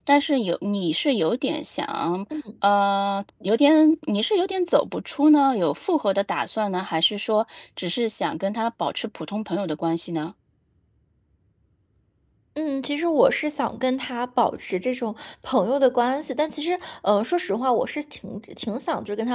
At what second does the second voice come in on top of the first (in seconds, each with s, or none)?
none